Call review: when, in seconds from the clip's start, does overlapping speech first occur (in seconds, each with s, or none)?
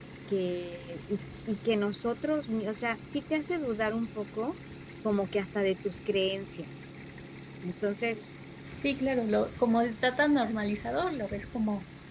none